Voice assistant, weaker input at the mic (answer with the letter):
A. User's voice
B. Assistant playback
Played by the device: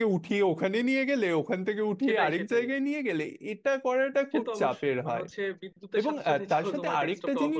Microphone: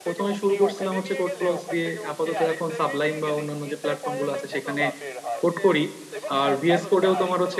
B